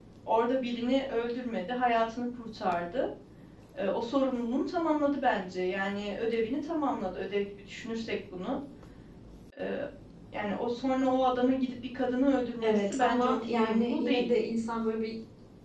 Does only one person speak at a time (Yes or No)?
No